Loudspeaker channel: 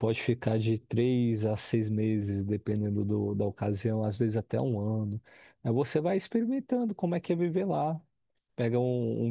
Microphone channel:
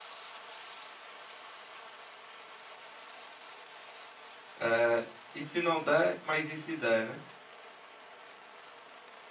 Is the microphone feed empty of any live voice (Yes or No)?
No